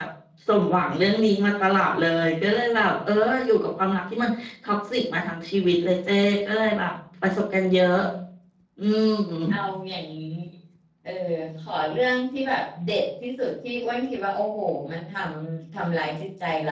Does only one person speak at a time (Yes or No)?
Yes